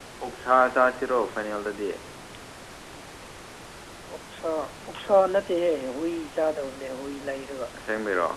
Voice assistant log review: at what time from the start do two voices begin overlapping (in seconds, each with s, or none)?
none